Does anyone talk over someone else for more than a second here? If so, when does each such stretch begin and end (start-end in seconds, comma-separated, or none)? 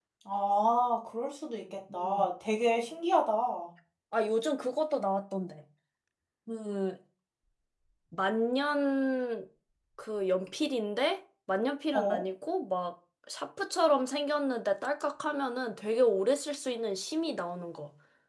none